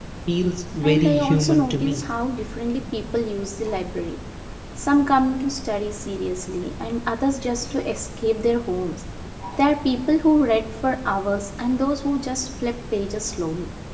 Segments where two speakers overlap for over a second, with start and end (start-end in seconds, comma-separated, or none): 0.8-2.0